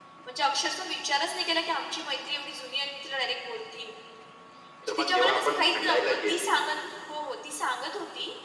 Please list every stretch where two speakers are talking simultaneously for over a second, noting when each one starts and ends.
4.9-6.5

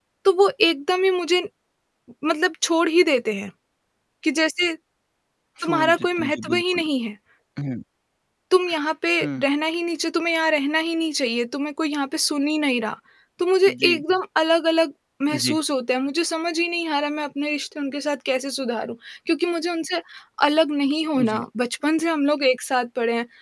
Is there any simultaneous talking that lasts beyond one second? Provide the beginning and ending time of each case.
5.6-6.8

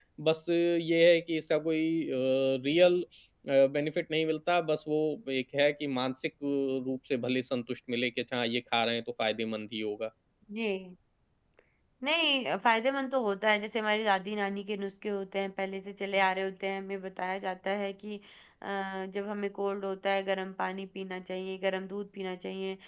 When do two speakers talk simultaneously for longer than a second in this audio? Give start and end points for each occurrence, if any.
none

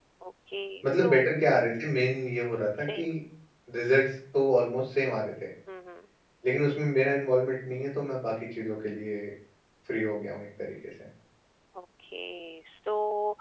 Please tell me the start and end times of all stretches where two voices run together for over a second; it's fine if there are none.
none

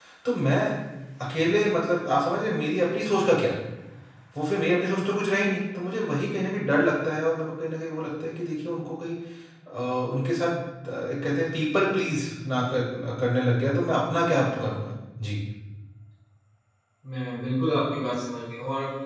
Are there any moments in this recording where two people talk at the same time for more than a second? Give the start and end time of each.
none

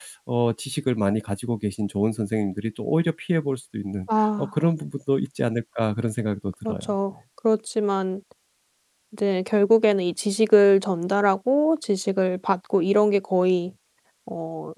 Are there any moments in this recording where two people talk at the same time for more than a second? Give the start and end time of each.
none

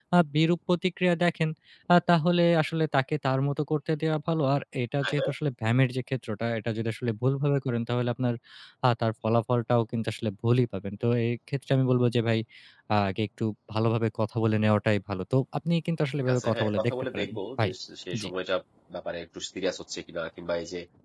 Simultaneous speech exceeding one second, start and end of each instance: 16.3-17.7

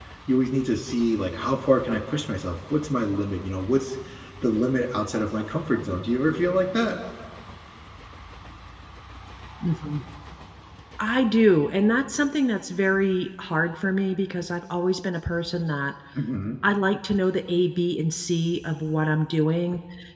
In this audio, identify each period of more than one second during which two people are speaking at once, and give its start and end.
none

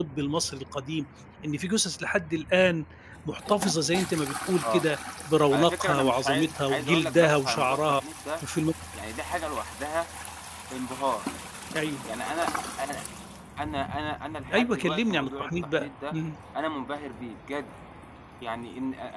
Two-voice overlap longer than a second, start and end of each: 5.5-8.0, 14.5-16.1

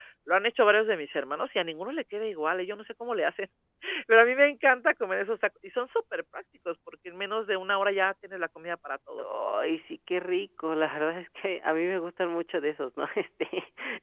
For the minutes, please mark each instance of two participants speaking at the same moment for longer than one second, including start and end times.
none

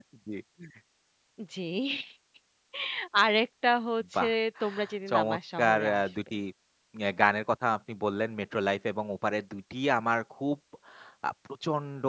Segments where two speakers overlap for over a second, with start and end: 5.1-6.3

